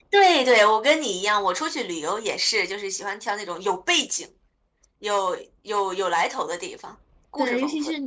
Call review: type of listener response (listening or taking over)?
taking over